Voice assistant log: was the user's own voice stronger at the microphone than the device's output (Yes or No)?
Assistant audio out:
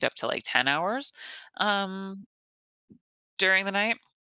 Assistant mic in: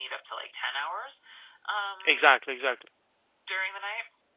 Yes